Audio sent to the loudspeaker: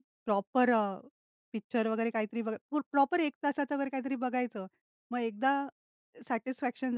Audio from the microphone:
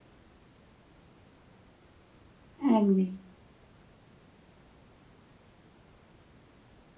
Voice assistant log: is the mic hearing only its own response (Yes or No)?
No